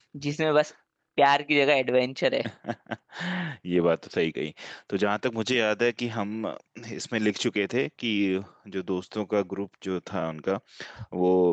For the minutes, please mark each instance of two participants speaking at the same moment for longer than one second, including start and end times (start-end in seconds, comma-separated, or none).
none